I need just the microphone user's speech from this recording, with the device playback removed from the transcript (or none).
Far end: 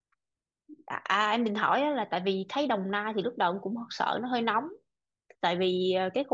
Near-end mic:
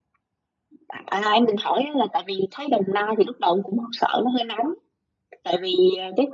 none